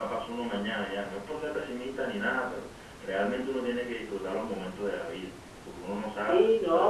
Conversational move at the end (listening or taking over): taking over